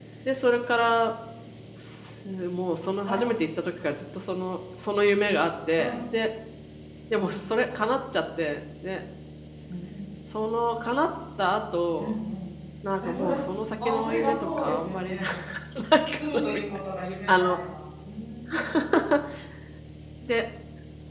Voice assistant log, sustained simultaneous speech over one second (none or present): present